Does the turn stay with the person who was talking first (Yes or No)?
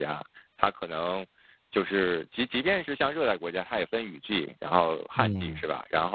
Yes